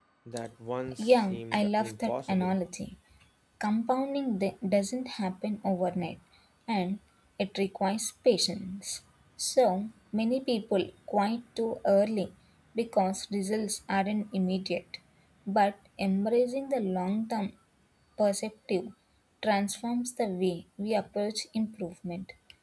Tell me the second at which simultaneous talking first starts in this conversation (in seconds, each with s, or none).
1.0 s